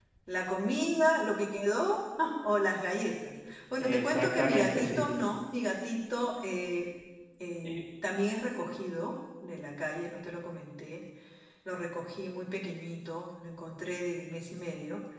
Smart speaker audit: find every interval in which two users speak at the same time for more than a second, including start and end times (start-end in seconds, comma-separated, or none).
3.8-5.1